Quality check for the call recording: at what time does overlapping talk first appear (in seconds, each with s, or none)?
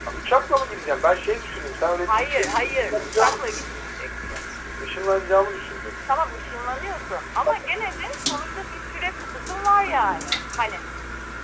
2.1 s